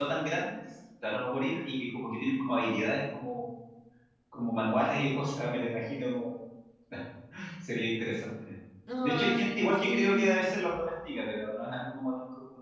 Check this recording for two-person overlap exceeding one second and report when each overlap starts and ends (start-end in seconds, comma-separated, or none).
9.0-10.5